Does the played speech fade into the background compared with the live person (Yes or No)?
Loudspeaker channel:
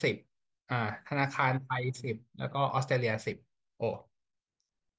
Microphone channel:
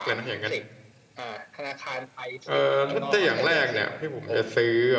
Yes